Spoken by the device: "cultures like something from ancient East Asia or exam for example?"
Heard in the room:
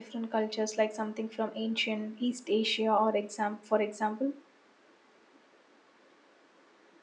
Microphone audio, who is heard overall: echo only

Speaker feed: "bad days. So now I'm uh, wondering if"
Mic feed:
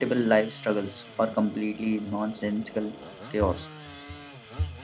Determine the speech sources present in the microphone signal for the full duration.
user only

